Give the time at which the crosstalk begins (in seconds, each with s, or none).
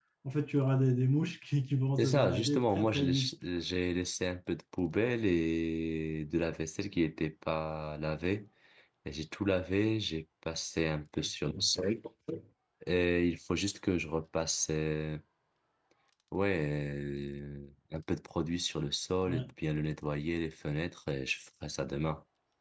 2.0 s